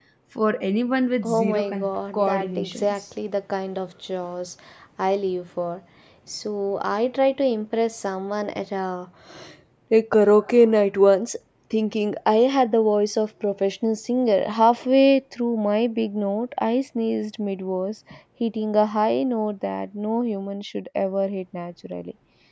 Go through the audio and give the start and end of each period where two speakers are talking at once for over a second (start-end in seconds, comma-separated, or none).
1.2-3.0